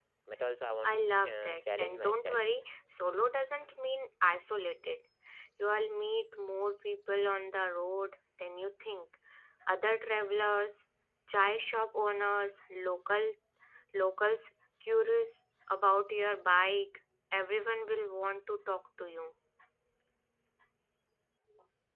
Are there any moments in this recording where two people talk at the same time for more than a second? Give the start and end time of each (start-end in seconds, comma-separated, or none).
0.8-2.4